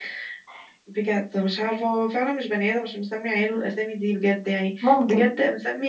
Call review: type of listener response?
listening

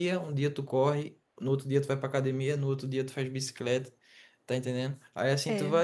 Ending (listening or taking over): listening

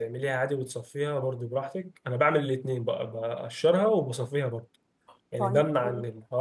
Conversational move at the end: listening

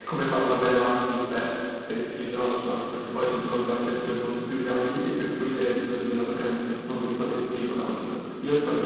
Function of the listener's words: listening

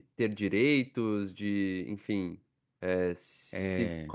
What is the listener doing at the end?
listening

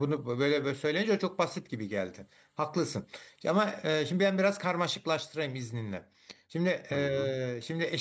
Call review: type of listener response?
listening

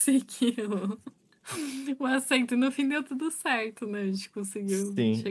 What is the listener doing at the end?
taking over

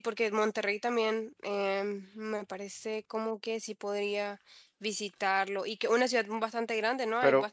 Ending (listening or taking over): taking over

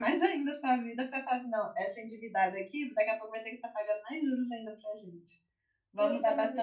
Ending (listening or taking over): taking over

